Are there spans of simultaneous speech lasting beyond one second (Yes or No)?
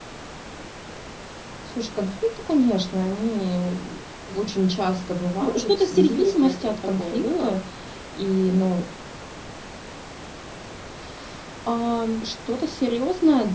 Yes